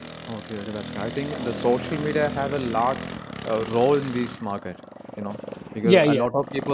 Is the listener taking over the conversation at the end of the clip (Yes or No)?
No